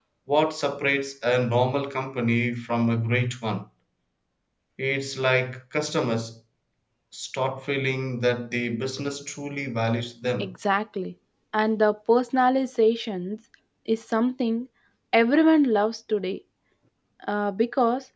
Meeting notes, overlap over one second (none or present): none